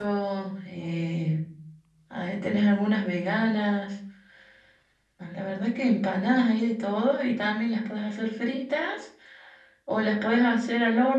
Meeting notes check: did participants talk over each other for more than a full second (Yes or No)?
No